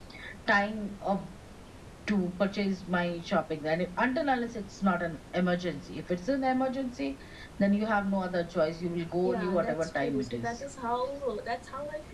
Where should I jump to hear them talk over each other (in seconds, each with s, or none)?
9.2 s